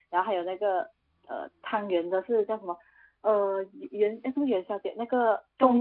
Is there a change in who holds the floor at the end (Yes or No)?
No